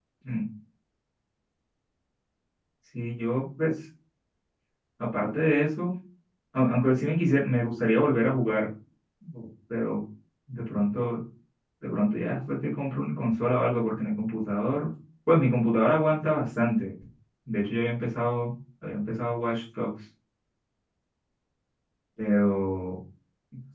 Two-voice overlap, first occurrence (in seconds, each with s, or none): none